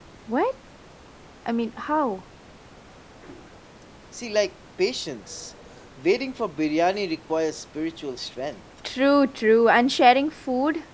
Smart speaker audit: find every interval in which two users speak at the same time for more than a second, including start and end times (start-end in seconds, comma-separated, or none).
none